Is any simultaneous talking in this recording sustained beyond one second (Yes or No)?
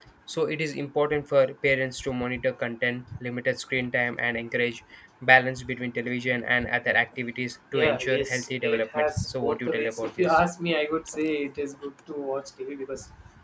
Yes